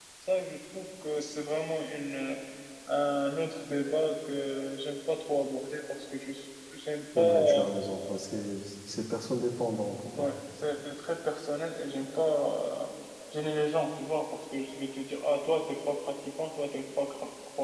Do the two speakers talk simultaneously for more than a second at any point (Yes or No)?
No